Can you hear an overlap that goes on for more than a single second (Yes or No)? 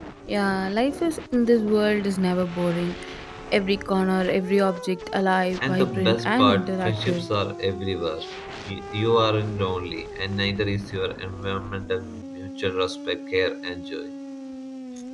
Yes